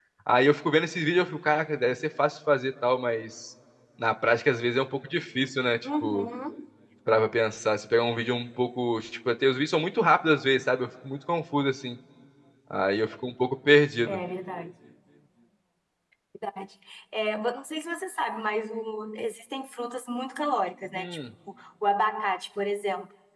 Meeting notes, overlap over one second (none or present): none